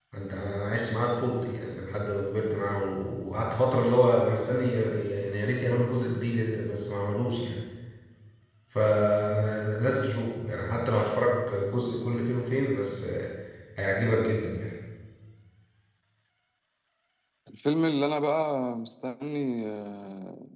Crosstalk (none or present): none